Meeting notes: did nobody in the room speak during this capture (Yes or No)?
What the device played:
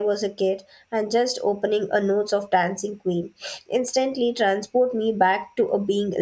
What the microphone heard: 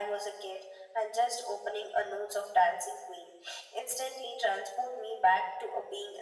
Yes